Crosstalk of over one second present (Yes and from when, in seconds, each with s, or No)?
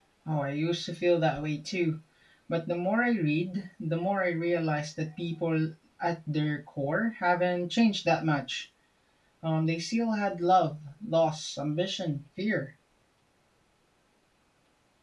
No